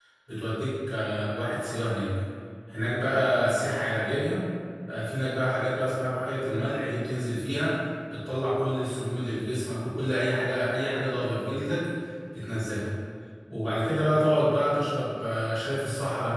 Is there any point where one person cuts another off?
No

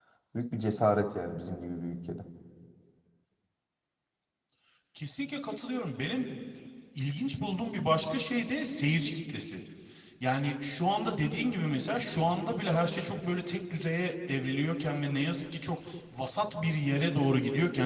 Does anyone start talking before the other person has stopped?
No

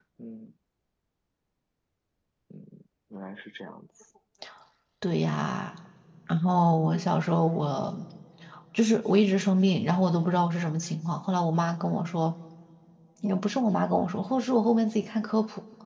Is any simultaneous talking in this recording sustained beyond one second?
No

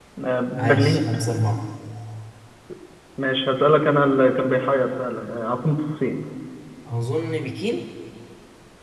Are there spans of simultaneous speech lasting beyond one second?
No

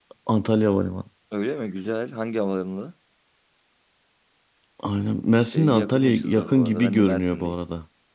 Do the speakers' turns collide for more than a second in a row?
Yes, from 5.5 s

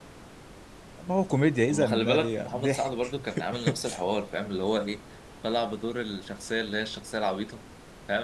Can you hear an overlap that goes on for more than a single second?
Yes, from 1.7 s

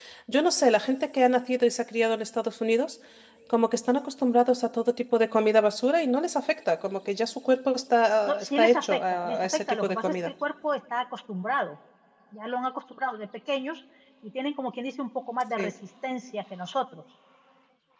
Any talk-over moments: Yes, from 8.3 s

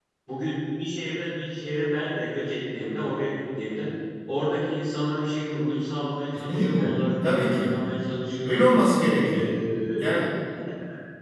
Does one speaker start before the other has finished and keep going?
Yes, from 6.3 s

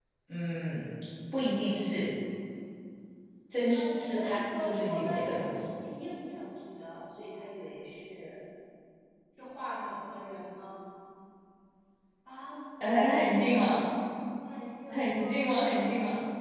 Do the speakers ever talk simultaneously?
Yes, from 3.7 s

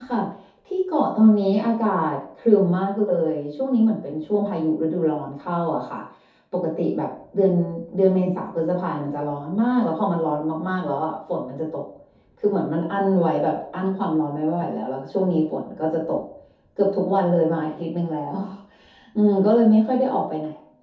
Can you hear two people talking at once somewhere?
No

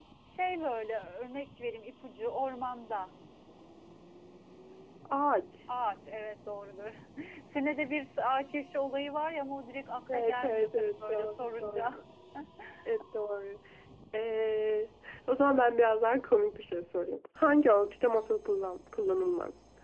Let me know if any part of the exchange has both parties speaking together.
Yes, from 10.1 s

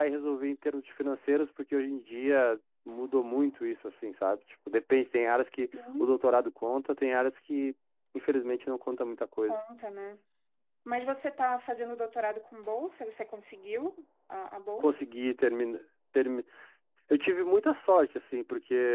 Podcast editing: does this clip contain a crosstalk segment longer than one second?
No

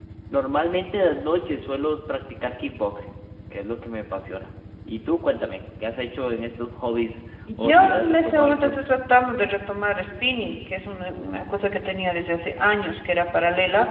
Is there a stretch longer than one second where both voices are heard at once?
Yes, from 7.5 s

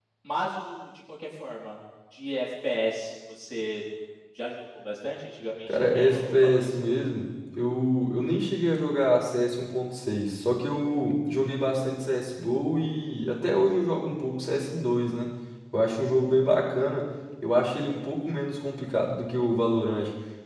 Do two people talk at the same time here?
Yes, from 5.7 s

